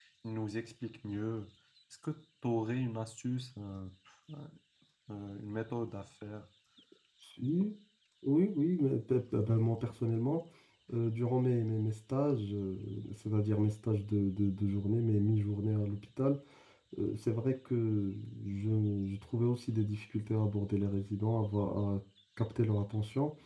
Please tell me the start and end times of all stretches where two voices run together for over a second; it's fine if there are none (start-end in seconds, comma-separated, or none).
none